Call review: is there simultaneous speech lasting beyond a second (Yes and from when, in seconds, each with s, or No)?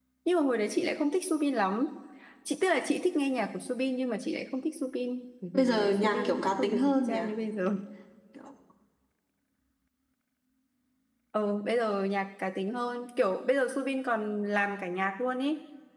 Yes, from 5.5 s